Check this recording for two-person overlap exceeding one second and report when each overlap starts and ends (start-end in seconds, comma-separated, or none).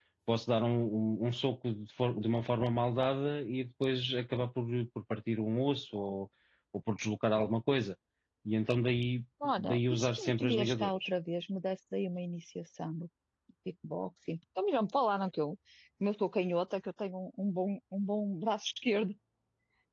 9.6-11.0